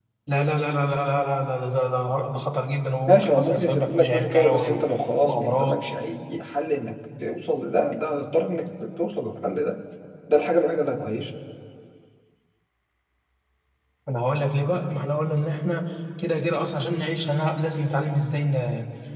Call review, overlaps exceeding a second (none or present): present